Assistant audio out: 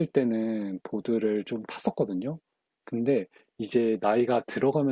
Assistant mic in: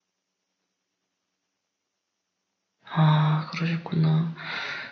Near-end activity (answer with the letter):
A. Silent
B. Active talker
B